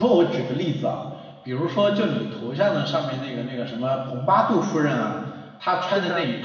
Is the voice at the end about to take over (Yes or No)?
No